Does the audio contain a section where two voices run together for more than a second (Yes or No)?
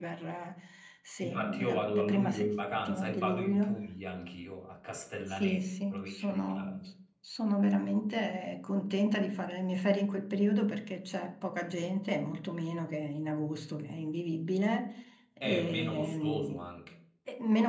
Yes